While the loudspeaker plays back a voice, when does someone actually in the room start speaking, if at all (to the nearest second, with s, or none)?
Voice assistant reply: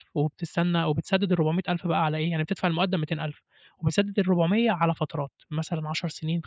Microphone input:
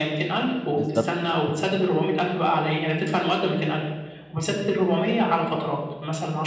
1 s